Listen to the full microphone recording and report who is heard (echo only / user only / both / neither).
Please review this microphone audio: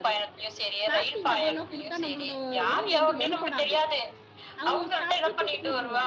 both